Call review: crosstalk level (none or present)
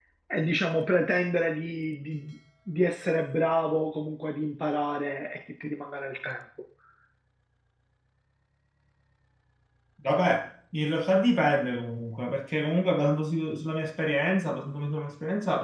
none